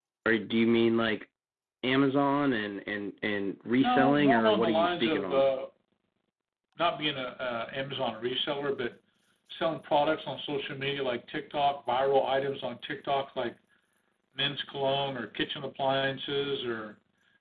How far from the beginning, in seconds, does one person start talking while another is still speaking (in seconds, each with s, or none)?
3.8 s